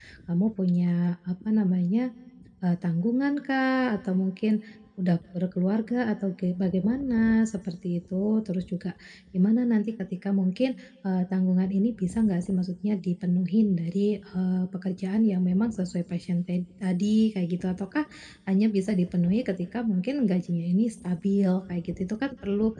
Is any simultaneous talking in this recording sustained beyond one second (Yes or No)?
No